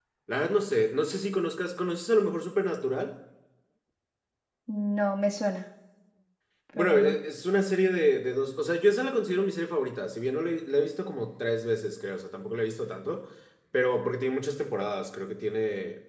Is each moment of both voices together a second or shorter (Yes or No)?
Yes